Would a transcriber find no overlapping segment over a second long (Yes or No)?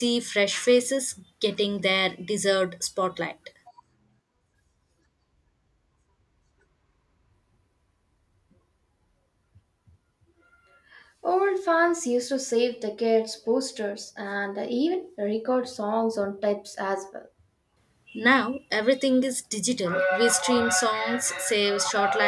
Yes